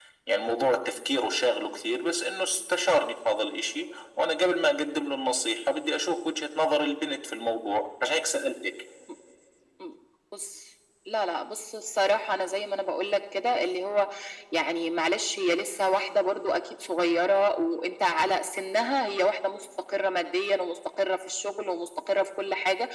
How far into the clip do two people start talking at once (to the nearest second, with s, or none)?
none